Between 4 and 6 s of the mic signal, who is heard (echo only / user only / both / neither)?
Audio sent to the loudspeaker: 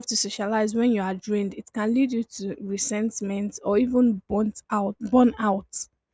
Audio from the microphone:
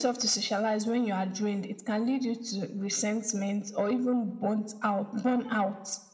echo only